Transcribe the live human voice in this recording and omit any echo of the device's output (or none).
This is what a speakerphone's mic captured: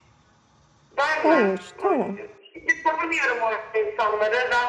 Havuç. Tamam.